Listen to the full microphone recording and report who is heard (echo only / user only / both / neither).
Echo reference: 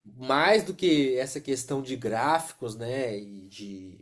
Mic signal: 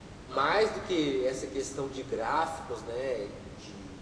echo only